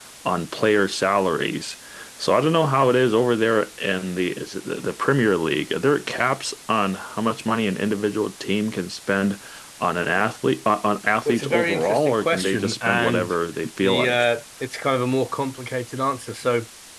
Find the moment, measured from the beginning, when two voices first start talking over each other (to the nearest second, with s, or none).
11 s